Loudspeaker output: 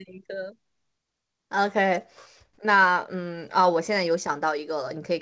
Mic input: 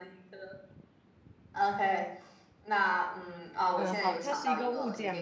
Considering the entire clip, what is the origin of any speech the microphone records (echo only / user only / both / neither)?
both